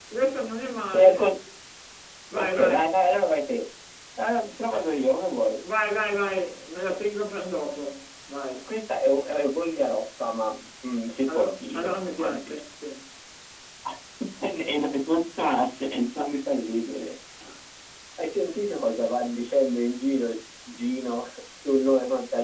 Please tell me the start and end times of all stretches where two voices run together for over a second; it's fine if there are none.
11.3-12.6

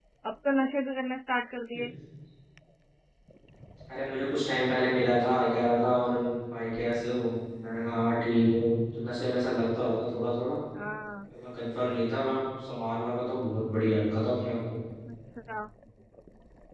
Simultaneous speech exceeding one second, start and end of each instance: none

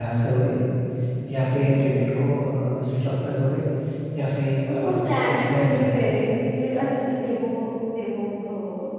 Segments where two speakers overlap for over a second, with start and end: 4.7-6.0

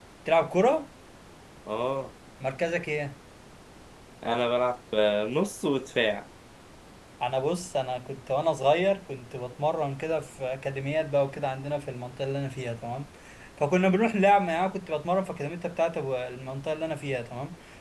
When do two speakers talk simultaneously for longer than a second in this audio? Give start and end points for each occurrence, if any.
none

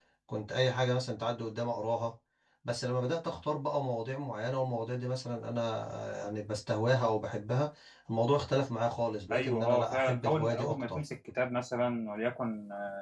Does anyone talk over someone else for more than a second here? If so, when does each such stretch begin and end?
9.3-11.0

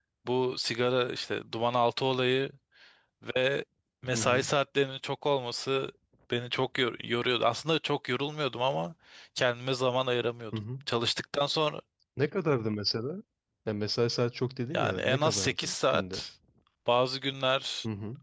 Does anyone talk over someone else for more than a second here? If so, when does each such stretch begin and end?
14.7-16.2

